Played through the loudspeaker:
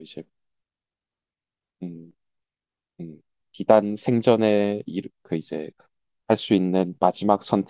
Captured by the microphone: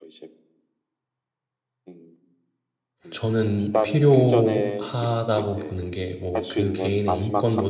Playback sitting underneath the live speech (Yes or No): Yes